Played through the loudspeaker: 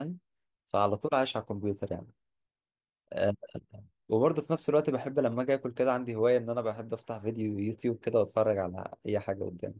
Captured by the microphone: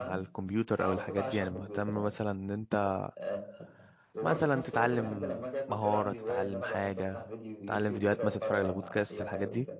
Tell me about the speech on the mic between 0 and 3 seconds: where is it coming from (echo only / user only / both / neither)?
both